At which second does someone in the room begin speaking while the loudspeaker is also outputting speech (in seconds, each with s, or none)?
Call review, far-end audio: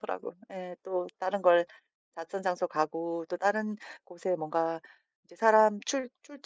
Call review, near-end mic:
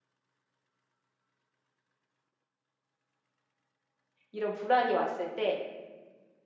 4.3 s